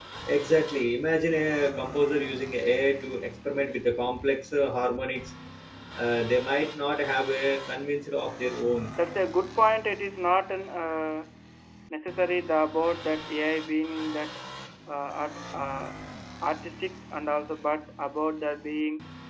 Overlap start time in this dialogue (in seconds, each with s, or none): none